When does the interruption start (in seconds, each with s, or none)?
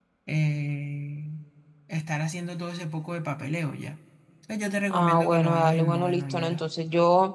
4.9 s